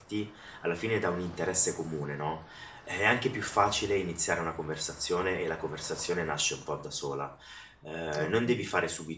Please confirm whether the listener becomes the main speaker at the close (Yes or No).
No